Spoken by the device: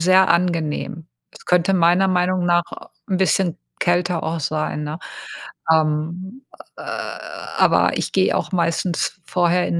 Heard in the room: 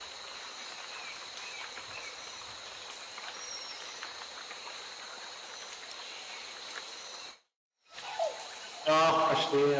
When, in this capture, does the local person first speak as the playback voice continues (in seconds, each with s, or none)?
8.9 s